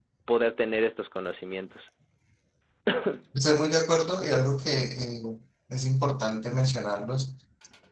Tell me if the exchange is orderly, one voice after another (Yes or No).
Yes